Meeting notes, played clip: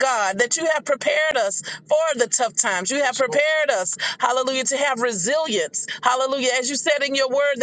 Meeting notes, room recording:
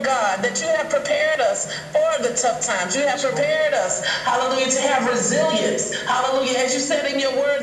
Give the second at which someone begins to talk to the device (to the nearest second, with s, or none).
none